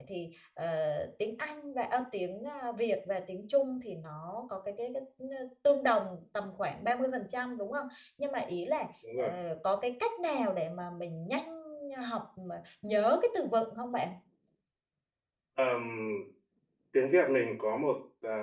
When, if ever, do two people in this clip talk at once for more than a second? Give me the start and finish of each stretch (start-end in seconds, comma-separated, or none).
none